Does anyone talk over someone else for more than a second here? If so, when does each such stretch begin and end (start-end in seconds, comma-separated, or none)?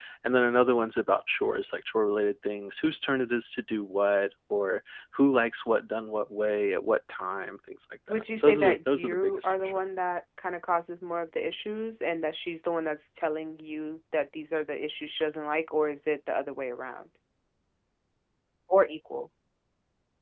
8.1-9.8